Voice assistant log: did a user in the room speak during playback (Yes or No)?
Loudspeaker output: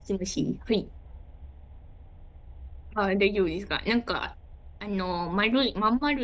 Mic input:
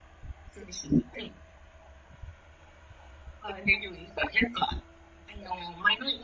No